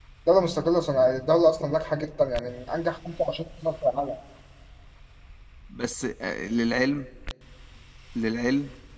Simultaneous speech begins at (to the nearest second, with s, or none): none